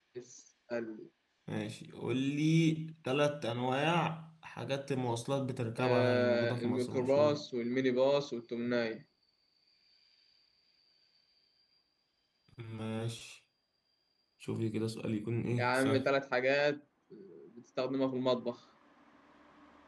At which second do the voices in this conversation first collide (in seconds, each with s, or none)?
5.8 s